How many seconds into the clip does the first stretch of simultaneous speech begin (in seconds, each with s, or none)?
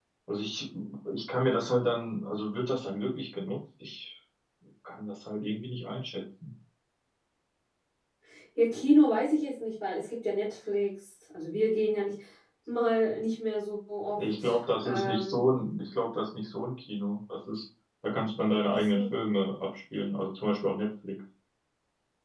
14.2 s